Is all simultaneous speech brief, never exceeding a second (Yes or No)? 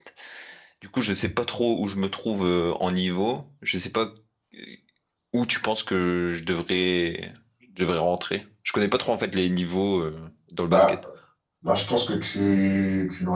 Yes